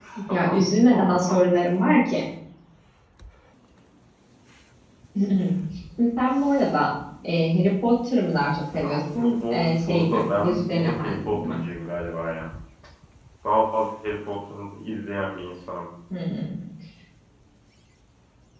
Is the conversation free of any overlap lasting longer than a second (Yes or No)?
No